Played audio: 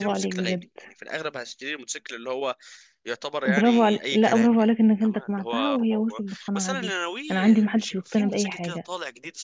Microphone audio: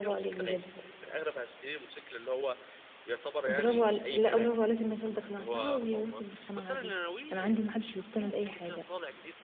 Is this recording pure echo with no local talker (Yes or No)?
Yes